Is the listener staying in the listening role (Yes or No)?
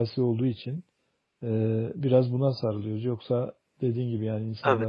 Yes